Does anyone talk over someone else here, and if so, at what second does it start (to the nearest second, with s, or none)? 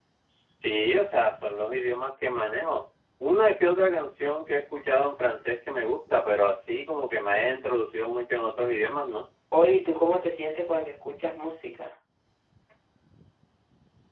none